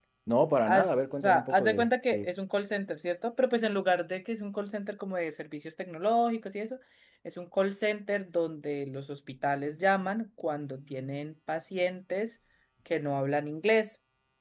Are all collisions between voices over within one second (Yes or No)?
No